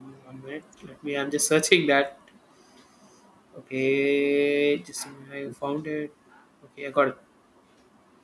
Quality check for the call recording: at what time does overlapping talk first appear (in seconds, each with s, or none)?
none